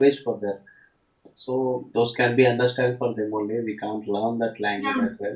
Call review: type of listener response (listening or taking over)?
taking over